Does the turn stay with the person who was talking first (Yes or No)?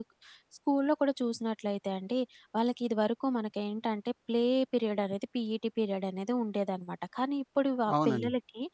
Yes